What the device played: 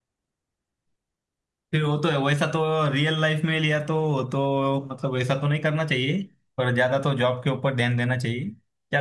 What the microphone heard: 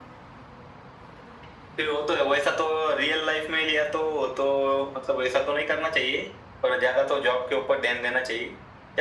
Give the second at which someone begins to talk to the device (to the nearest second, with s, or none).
none